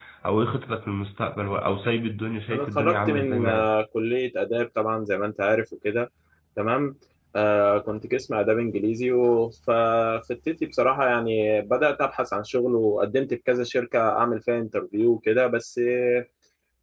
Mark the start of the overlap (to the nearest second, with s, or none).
3 s